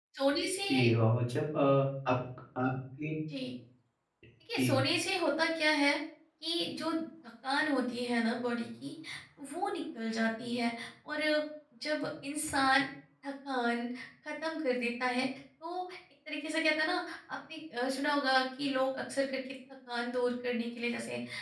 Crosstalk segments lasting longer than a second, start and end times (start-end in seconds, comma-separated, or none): none